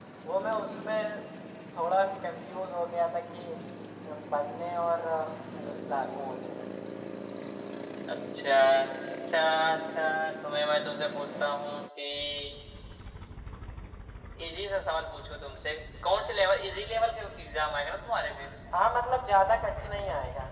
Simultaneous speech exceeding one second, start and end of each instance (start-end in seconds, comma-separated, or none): none